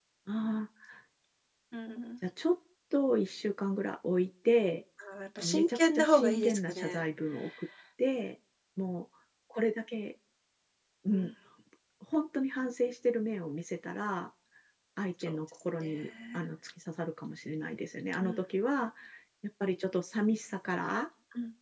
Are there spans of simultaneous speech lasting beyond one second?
Yes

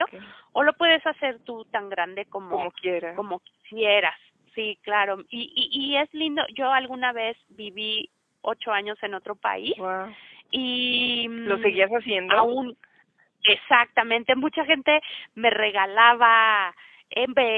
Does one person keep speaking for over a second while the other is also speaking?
No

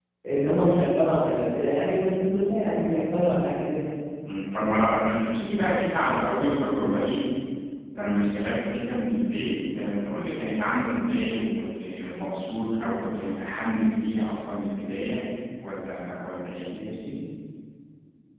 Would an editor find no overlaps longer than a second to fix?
Yes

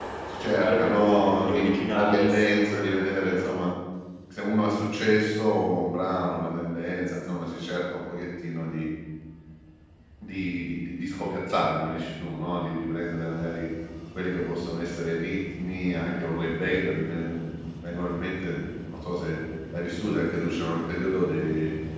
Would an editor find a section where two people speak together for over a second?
Yes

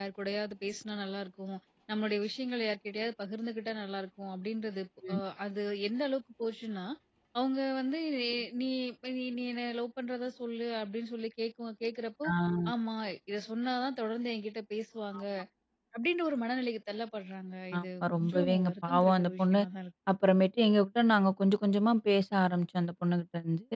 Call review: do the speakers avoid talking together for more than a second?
No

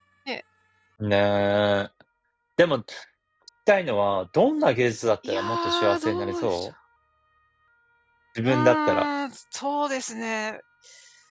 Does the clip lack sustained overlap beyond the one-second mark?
No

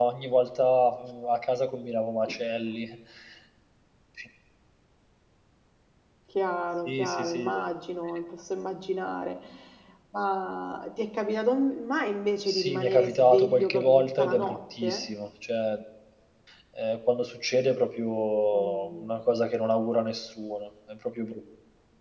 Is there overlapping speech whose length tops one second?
Yes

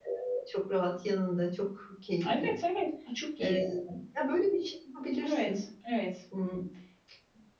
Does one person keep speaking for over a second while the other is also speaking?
No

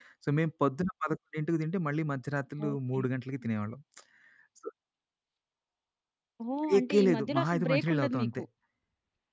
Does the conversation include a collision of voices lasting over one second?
Yes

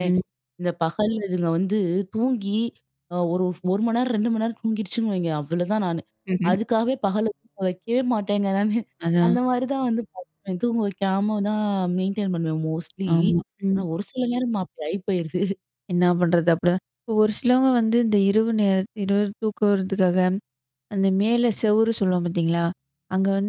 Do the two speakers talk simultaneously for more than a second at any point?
No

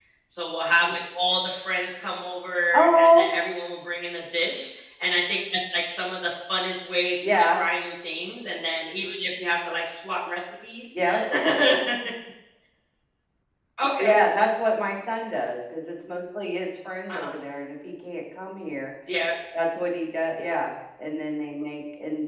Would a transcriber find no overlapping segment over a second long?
Yes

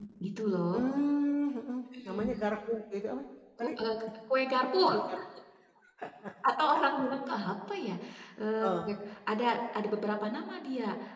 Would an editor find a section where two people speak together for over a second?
No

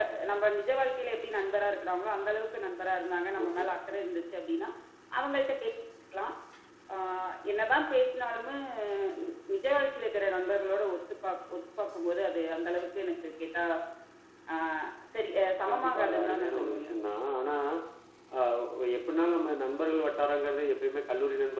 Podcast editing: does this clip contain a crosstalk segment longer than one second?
Yes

